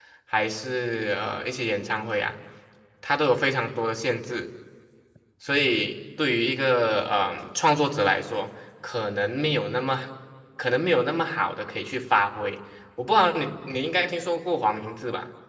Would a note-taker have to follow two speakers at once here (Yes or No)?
No